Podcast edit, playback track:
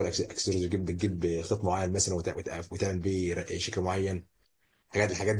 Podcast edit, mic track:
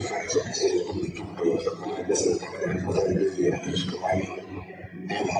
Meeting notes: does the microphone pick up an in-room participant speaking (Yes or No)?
No